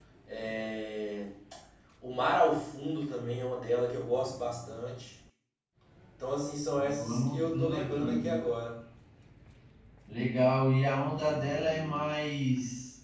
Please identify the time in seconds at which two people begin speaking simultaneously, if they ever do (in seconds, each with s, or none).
6.8 s